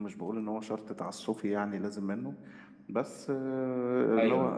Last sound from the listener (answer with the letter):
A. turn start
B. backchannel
B